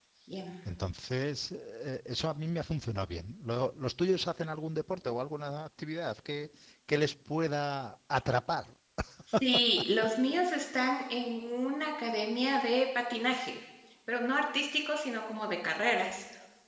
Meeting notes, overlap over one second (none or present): none